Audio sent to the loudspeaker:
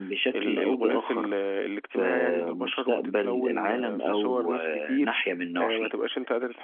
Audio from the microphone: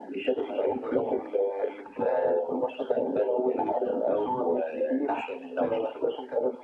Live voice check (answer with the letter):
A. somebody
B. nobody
B